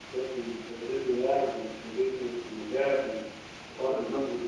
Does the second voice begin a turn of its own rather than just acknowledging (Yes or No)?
Yes